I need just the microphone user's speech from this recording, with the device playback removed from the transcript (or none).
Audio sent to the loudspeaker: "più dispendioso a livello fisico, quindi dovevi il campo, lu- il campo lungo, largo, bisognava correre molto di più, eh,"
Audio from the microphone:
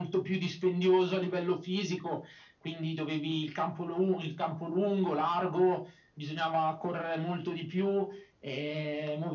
none